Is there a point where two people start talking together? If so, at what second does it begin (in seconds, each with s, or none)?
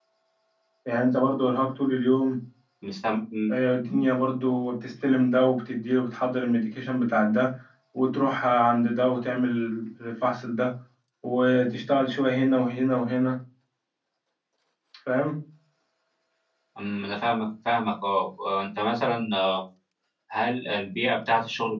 none